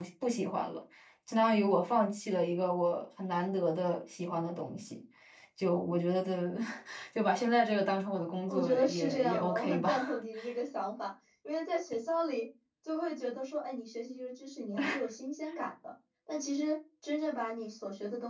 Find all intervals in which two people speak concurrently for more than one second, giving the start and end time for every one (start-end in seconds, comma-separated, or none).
8.5-10.2